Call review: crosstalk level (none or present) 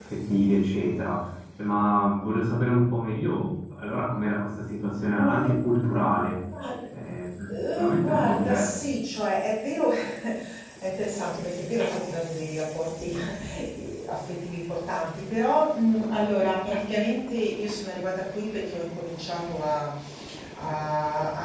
present